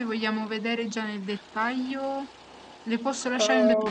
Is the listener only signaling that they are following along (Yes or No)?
No